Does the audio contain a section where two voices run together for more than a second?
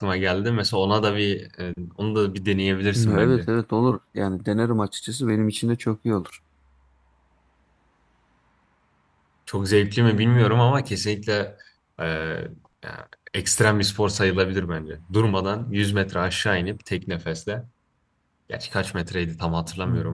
No

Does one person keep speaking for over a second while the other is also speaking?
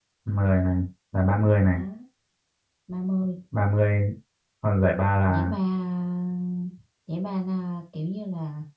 No

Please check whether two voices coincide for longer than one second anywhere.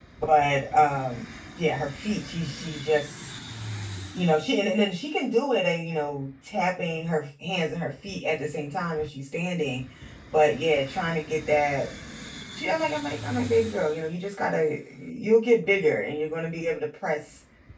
No

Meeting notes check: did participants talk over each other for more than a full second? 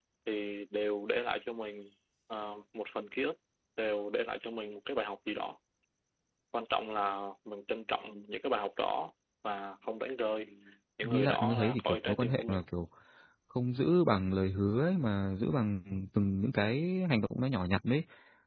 Yes, from 11.0 s

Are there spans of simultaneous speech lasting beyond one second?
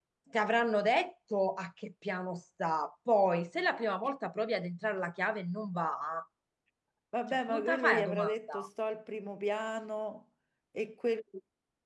Yes, from 7.3 s

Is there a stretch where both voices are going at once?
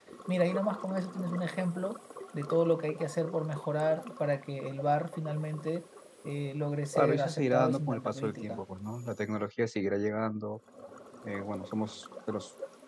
Yes, from 6.9 s

